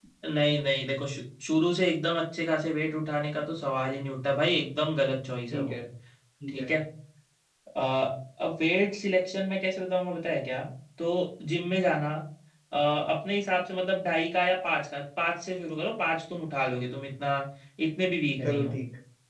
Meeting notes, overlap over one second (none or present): none